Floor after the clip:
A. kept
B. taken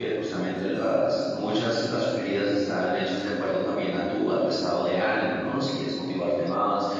A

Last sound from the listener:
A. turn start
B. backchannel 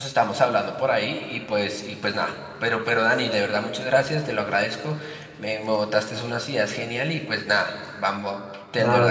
A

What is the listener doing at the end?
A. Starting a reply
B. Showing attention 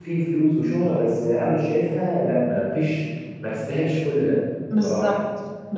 A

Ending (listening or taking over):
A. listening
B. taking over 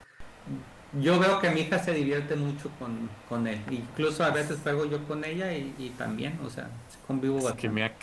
B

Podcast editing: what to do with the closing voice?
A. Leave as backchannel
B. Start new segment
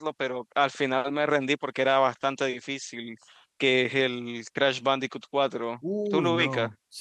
B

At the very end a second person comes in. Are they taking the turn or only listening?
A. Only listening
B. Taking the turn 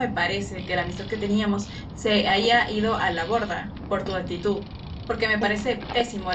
A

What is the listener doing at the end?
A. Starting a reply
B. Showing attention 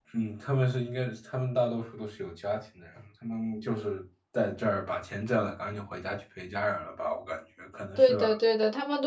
A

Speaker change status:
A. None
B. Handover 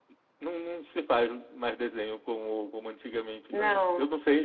A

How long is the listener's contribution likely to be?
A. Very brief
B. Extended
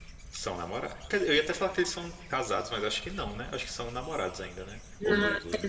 B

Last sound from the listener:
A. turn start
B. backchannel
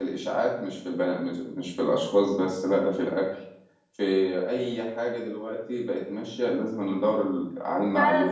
A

